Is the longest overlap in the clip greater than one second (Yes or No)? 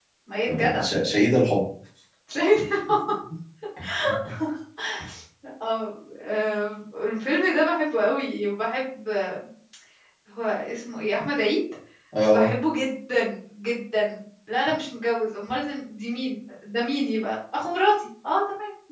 No